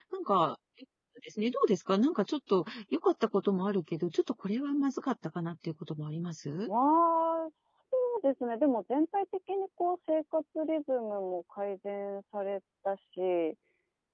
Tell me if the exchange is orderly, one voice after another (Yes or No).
Yes